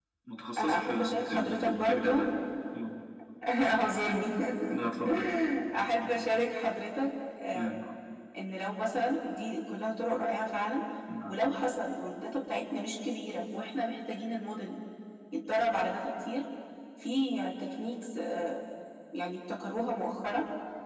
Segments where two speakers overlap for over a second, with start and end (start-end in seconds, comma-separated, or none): 0.6-2.3